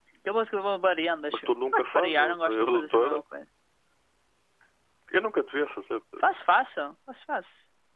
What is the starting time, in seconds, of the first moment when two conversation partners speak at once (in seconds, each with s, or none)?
1.3 s